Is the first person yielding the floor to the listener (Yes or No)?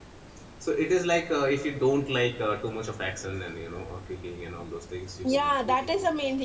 Yes